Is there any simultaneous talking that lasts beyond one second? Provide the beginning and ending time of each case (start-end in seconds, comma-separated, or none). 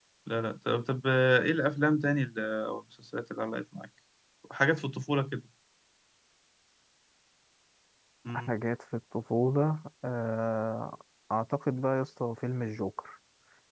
none